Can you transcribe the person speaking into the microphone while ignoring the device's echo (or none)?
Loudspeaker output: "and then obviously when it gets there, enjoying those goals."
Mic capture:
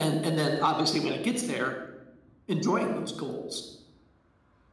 none